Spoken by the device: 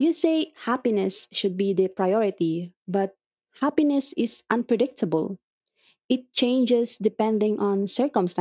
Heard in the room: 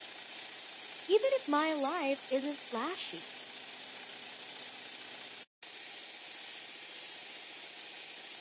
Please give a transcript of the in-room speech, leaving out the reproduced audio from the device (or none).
even if my life isn't flashy.